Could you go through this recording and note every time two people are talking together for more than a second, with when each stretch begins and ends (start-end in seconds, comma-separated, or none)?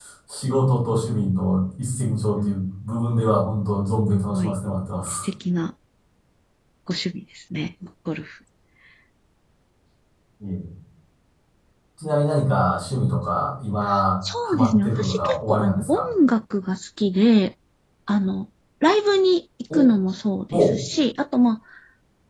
14.4-16.1